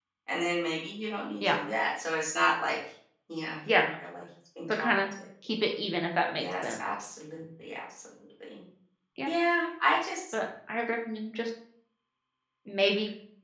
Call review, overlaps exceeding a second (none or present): none